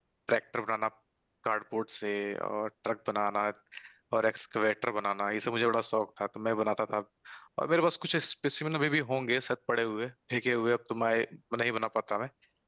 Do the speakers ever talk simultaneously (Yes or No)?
No